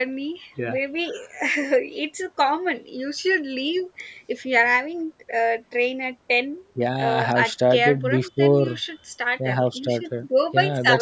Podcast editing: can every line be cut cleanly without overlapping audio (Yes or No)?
No